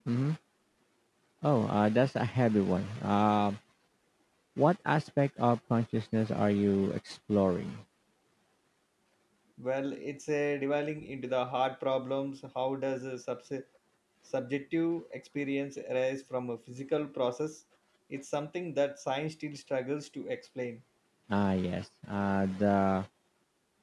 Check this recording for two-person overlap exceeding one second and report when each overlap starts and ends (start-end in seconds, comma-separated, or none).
none